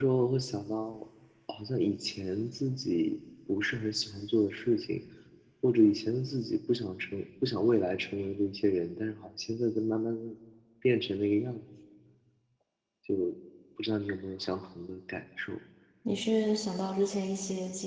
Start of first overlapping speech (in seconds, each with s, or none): none